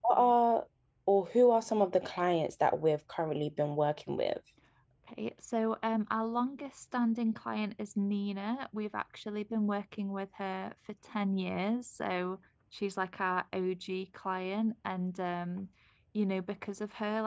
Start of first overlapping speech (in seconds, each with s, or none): none